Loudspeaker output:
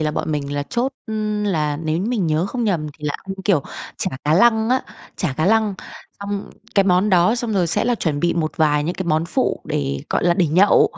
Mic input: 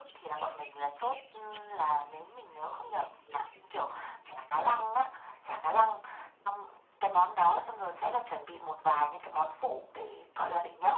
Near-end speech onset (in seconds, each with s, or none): none